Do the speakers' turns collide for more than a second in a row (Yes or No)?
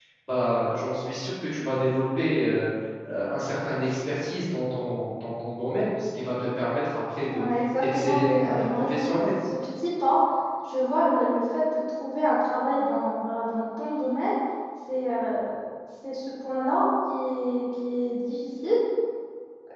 Yes